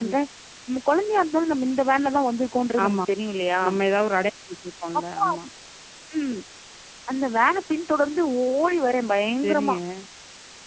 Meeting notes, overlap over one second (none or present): none